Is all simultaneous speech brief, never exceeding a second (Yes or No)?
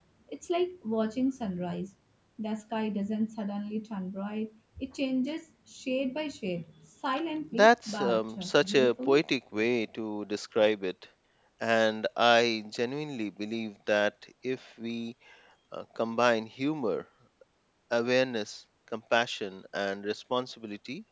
No